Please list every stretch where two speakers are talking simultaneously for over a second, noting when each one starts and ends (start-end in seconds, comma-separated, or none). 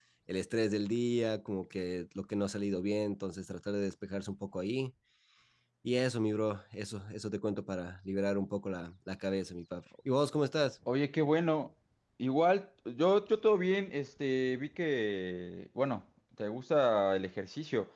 none